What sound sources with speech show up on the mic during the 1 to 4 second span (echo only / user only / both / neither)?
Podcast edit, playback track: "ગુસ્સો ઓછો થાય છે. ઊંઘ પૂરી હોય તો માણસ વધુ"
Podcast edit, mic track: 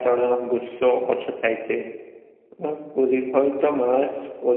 echo only